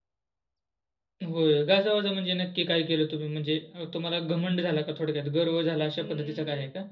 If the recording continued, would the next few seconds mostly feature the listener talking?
Yes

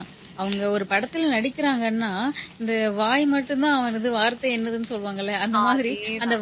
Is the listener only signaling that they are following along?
Yes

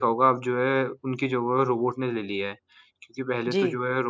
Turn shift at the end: No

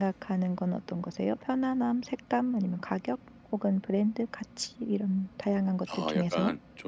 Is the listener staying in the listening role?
No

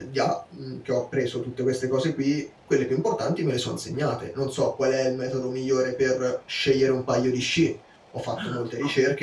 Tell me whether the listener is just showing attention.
Yes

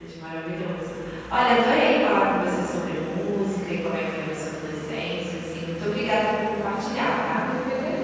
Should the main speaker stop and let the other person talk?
Yes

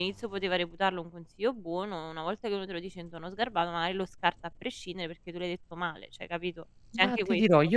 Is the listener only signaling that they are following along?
No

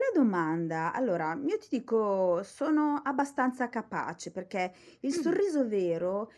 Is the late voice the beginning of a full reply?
No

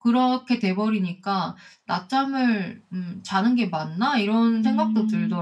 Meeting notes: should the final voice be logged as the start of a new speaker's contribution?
Yes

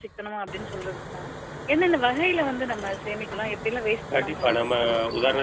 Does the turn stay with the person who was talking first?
No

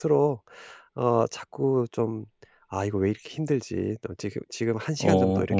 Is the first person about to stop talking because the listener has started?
No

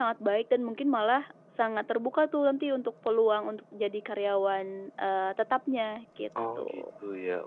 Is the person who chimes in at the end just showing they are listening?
No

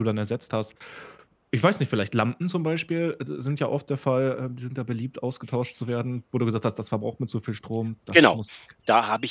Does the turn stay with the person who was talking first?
No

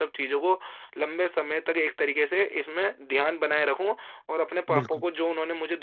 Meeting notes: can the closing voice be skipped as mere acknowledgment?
Yes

